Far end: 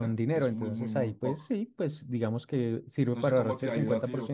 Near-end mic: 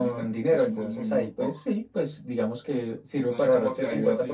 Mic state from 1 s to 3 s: echo only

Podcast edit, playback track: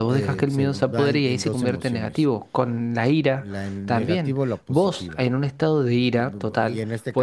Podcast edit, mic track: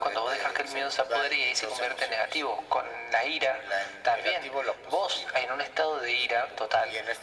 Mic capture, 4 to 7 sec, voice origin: echo only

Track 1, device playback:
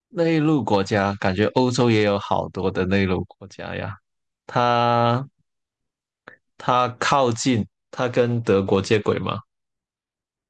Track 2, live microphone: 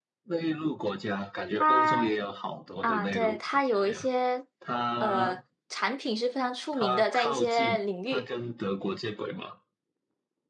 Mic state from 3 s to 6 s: both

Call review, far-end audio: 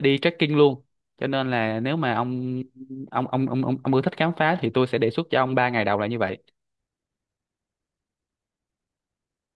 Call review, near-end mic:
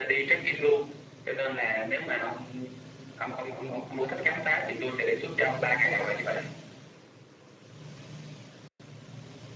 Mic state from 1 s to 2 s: echo only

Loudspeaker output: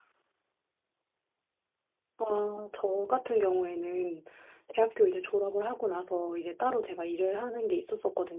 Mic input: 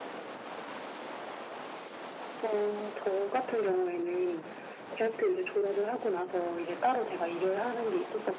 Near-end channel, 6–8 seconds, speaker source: echo only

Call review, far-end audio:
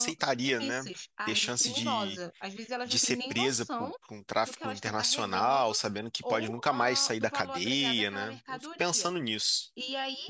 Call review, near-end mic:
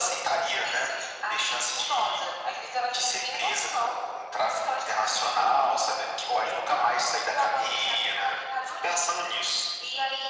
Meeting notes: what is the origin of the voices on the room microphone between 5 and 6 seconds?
echo only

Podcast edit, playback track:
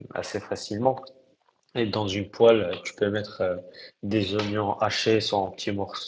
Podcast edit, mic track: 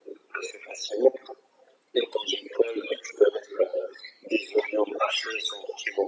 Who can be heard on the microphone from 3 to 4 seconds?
echo only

